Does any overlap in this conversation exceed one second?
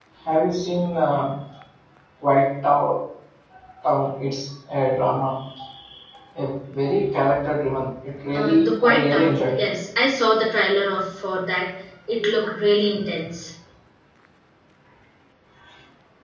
Yes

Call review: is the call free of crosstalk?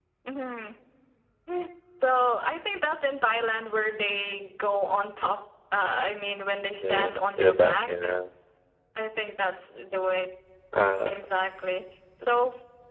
No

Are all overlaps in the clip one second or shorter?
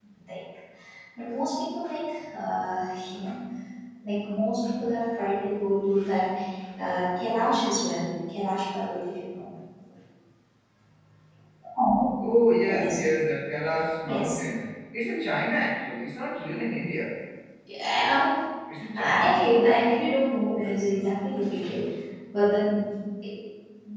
Yes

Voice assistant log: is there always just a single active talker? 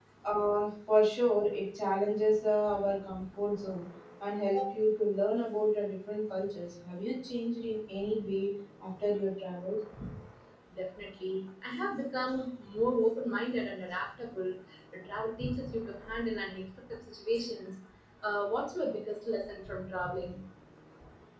Yes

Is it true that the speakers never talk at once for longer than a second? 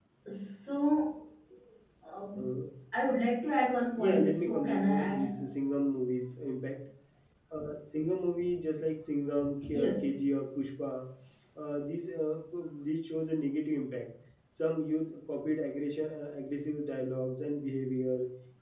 No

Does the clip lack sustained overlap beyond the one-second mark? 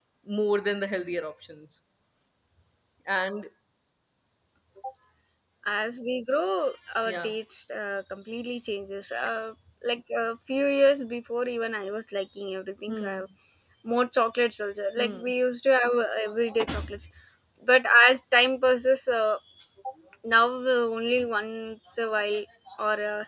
Yes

